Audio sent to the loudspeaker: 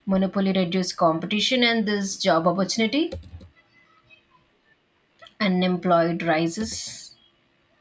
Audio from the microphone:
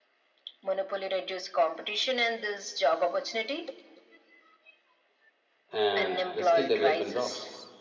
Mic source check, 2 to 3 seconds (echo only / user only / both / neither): echo only